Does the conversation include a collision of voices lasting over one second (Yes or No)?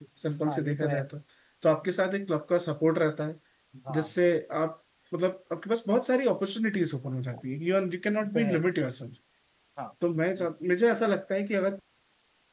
No